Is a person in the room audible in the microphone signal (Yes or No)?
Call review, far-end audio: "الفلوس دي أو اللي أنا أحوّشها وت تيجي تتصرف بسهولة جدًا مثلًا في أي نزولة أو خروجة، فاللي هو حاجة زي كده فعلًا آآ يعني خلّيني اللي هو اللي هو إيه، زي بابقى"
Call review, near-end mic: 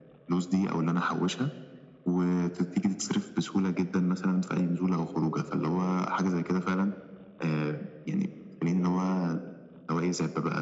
No